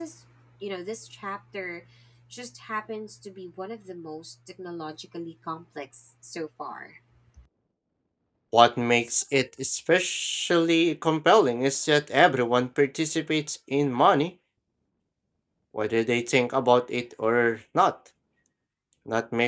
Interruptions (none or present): none